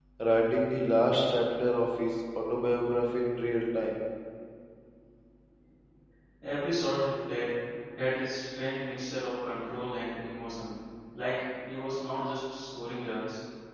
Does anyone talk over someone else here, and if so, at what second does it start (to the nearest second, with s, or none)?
none